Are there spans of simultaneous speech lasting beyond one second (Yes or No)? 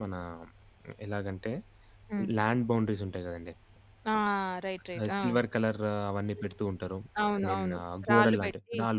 Yes